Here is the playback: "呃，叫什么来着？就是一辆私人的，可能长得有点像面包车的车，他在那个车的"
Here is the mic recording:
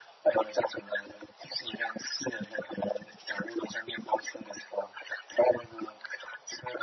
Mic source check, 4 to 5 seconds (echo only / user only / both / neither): echo only